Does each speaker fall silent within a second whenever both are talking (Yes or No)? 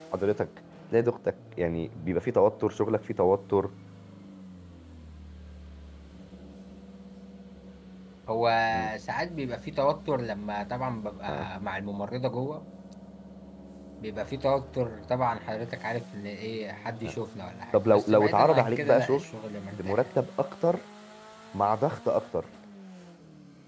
No